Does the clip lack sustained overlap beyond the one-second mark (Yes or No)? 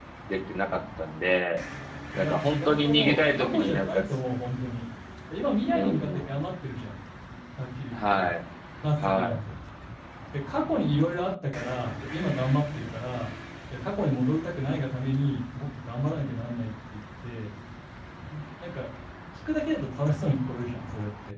No